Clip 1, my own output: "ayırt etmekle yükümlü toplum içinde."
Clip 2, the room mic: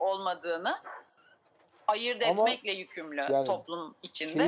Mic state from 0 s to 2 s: echo only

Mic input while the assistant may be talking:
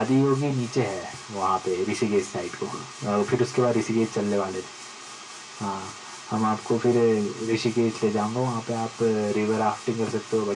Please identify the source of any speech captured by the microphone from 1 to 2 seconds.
echo only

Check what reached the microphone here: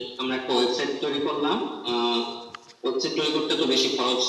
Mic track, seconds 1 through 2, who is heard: echo only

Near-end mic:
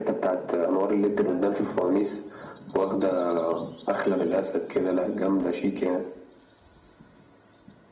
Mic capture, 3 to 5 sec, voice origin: echo only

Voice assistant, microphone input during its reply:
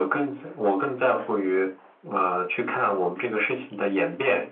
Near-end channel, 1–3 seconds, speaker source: echo only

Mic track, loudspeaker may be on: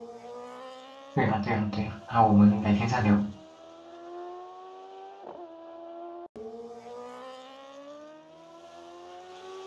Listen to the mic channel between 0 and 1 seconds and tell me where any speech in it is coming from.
neither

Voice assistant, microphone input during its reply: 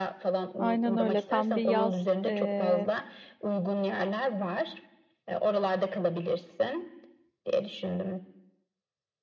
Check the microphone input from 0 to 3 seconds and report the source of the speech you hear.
both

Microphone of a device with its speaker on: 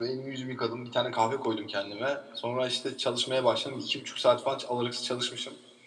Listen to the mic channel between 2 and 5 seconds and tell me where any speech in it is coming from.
user only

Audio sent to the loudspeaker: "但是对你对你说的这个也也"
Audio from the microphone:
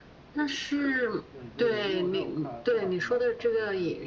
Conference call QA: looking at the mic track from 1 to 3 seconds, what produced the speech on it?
both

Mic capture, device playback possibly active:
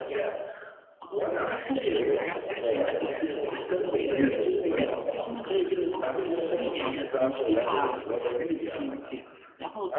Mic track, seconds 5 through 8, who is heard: both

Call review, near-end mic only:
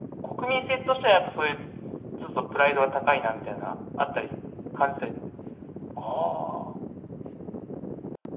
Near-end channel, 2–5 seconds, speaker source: echo only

